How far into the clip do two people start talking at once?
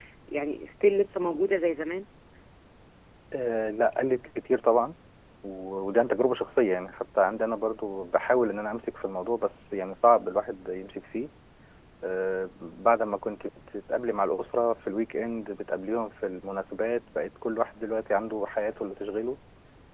none

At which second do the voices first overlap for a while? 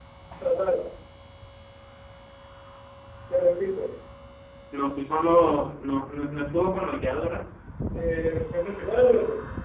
none

